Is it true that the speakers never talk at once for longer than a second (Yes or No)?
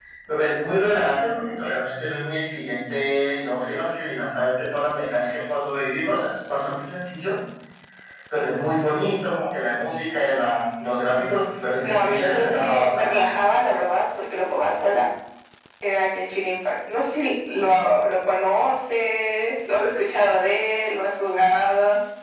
No